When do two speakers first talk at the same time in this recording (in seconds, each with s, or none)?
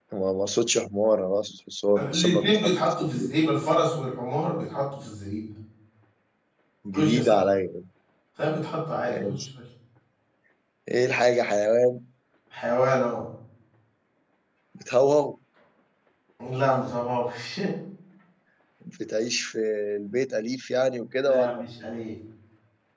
1.9 s